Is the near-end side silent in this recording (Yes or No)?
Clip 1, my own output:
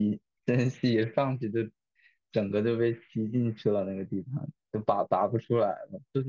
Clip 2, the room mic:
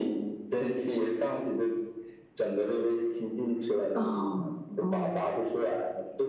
No